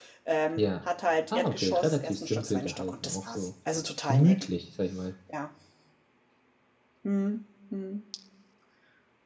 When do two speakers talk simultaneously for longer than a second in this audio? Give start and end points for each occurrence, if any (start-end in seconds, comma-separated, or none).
1.3-3.5